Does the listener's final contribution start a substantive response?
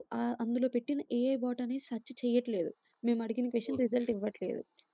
No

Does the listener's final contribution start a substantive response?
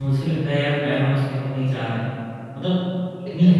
No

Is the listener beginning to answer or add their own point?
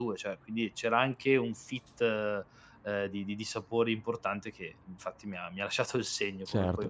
Yes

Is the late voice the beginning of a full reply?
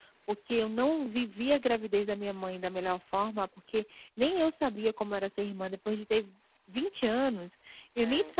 No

